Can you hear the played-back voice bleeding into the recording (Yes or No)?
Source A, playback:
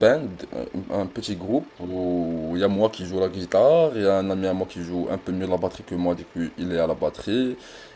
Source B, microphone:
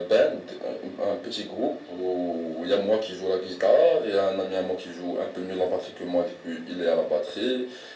Yes